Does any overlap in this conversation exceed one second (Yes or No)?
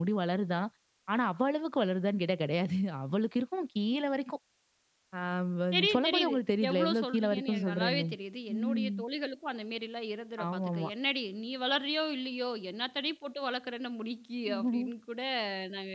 Yes